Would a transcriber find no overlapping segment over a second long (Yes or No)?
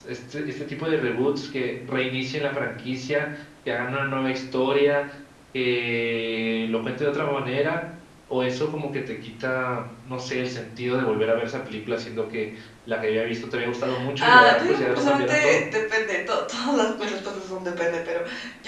No